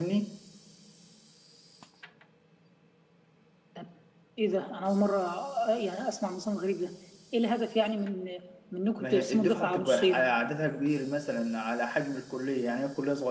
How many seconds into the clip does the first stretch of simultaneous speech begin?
9.0 s

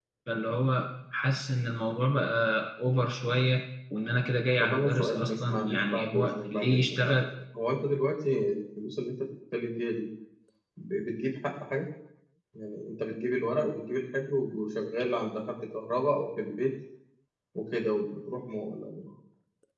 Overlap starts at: 4.6 s

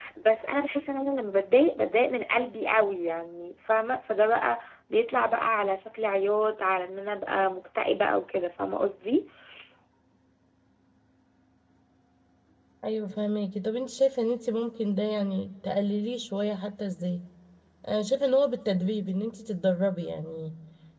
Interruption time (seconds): none

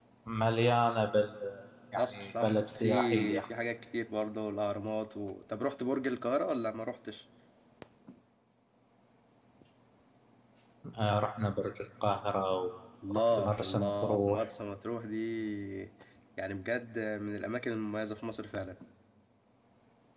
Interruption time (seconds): 2.0 s

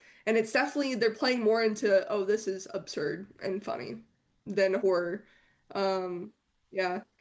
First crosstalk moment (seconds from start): none

